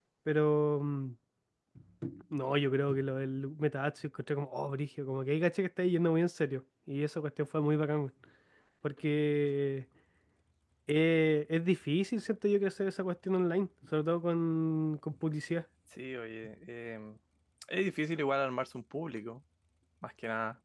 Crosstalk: none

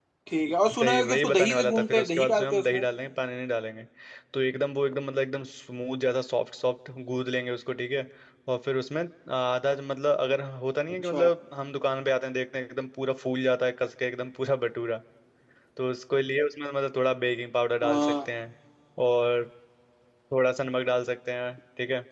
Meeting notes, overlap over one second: present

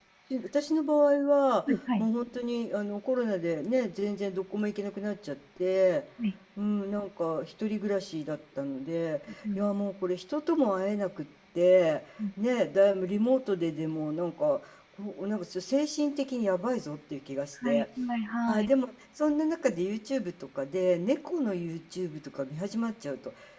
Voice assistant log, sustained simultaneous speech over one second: none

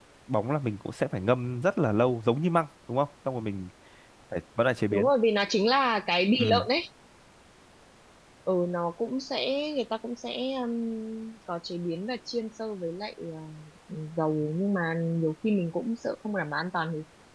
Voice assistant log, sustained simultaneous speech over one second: none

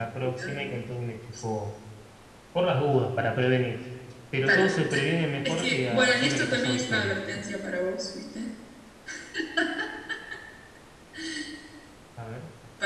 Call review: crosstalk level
present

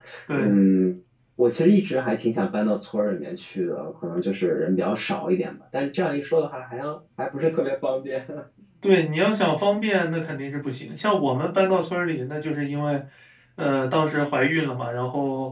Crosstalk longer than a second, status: none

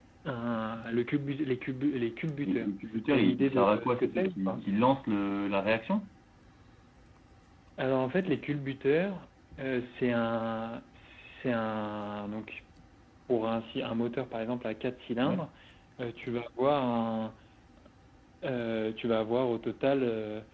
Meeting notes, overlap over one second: present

